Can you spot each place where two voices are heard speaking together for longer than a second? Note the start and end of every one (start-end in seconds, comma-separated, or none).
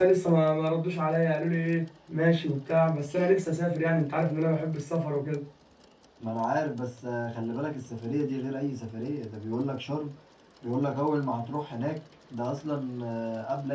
none